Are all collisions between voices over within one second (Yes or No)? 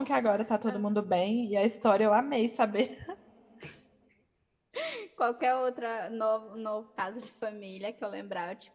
Yes